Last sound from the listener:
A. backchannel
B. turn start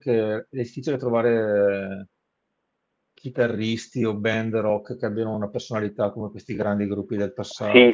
B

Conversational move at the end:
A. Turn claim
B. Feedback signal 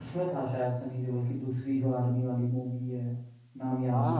A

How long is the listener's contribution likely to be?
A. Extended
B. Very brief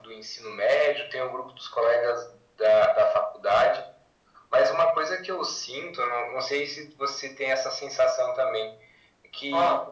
B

